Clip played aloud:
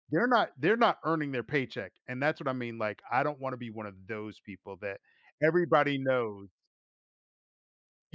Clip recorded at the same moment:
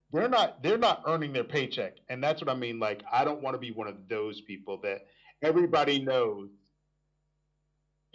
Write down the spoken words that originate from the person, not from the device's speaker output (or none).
none